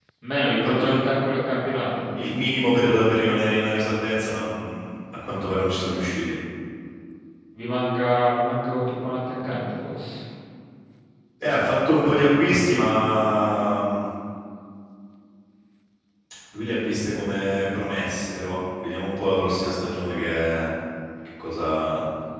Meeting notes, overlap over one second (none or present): none